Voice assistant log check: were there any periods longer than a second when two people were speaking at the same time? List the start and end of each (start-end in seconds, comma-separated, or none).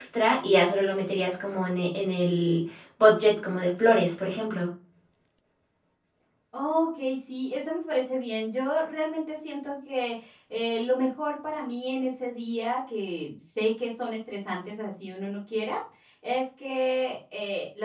none